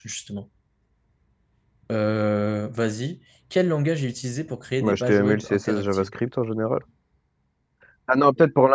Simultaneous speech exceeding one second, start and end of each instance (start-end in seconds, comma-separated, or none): 4.8-6.1